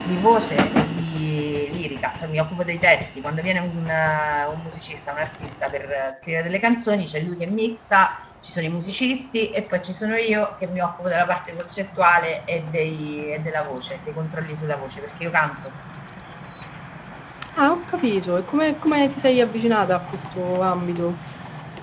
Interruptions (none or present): none